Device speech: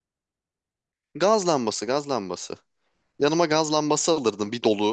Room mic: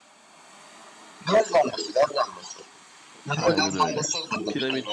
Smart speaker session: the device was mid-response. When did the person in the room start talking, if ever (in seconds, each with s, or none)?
3.3 s